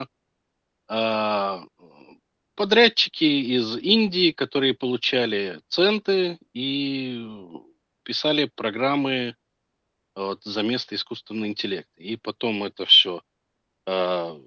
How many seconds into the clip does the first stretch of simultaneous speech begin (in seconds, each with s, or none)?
none